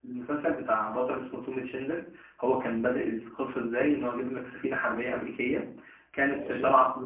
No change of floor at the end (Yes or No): Yes